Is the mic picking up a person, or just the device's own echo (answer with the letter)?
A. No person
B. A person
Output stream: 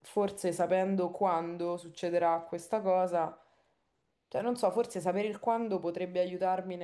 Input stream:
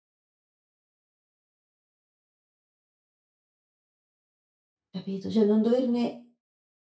B